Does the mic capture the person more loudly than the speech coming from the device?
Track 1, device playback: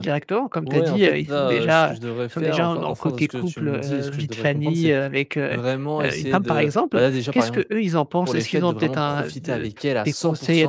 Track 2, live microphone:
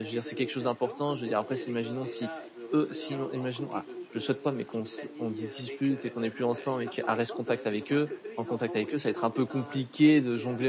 Yes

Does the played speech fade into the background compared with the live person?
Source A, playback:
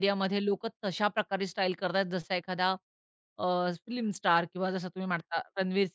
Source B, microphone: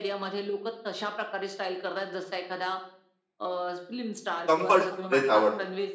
Yes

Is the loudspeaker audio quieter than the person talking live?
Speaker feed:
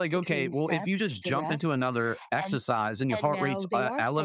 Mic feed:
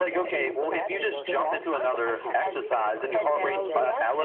No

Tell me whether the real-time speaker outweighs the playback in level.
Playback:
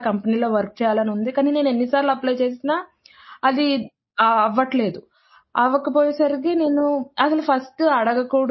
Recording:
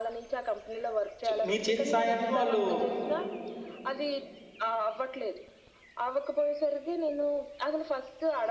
Yes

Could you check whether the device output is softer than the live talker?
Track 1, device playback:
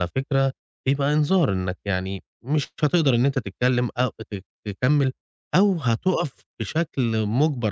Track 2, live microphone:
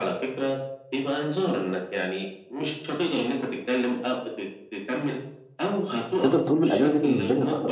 Yes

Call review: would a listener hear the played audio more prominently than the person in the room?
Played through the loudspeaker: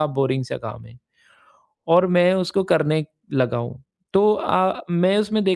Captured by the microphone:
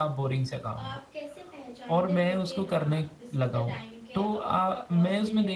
Yes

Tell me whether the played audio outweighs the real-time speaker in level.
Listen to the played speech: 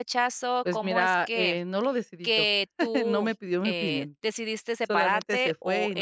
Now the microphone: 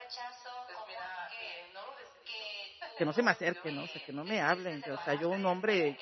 No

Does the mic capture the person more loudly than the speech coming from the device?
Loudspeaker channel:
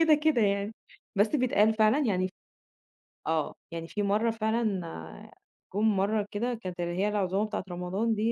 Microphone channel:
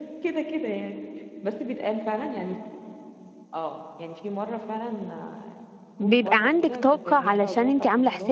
Yes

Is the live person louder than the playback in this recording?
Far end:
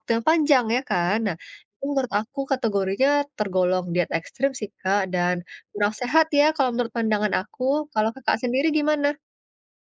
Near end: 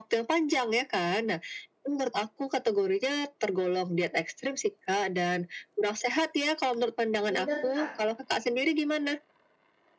No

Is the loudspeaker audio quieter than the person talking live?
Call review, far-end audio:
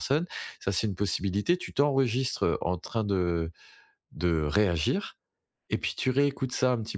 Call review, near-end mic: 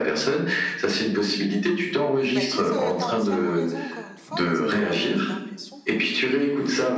No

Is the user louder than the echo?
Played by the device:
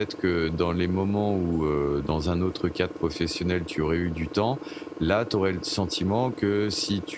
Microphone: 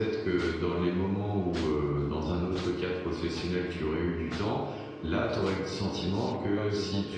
No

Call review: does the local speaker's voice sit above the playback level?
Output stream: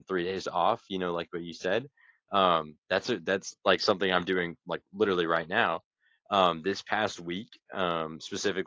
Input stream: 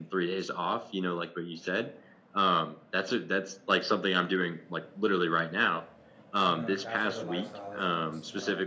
No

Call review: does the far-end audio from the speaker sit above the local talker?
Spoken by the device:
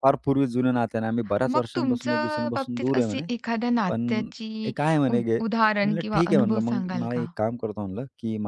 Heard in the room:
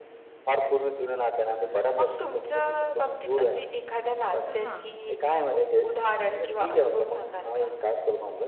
Yes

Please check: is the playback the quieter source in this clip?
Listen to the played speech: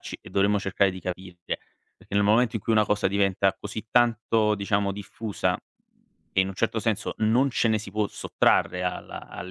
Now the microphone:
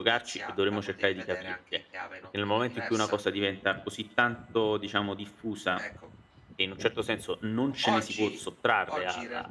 No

